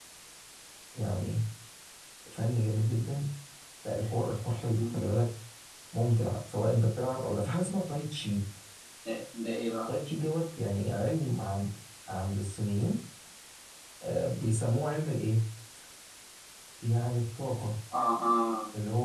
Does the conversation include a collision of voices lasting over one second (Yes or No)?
No